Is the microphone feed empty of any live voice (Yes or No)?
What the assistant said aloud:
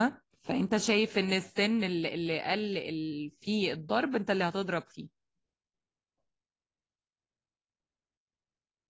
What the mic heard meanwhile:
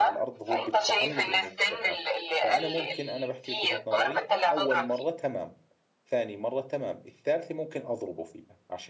No